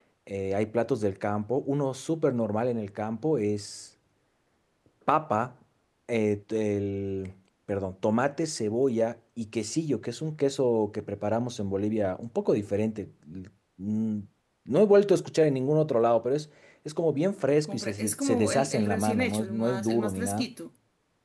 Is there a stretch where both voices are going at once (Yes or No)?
Yes